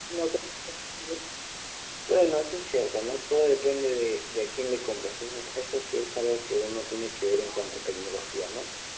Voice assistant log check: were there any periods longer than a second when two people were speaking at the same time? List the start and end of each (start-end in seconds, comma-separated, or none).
none